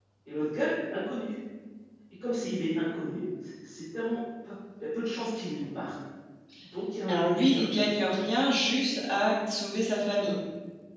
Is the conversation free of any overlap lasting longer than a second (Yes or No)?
No